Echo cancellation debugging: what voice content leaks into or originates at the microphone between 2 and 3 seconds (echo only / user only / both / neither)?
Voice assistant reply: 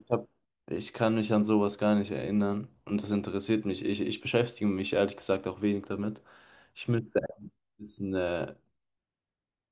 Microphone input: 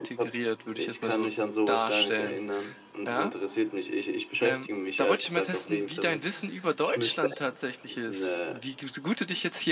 both